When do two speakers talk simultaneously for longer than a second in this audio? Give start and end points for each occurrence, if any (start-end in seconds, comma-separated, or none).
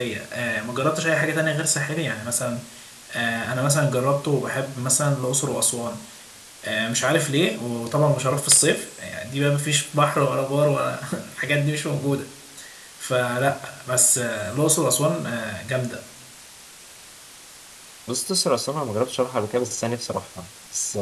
none